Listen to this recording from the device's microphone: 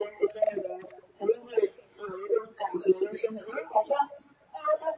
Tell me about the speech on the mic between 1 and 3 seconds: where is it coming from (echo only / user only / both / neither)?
echo only